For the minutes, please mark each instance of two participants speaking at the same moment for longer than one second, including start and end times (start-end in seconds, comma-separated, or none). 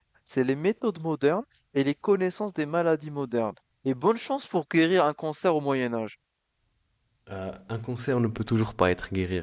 none